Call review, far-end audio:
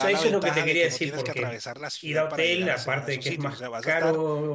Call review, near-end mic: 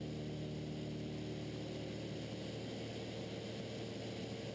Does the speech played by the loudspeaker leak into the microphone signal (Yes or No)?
No